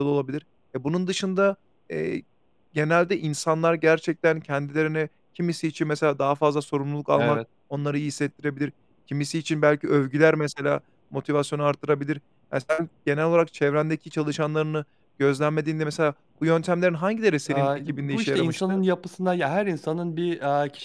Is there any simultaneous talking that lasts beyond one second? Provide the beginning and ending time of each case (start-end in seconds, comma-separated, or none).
17.5-18.8